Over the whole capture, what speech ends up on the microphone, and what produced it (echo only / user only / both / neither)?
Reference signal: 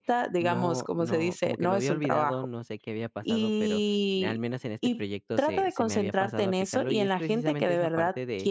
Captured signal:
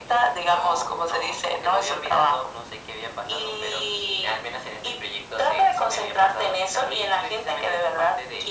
echo only